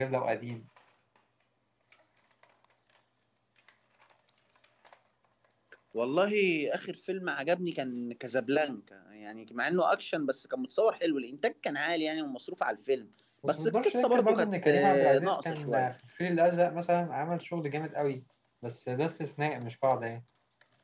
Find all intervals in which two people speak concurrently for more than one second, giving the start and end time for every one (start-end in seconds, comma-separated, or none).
13.5-15.9